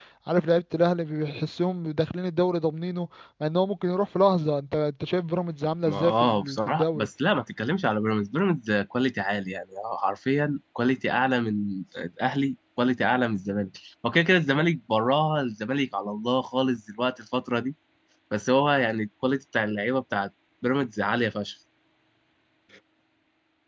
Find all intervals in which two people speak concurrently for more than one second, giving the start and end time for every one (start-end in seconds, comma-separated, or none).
5.9-7.1